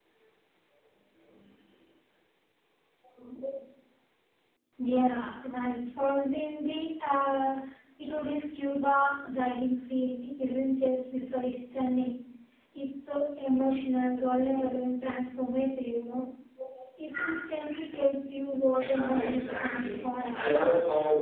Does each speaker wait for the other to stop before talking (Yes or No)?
No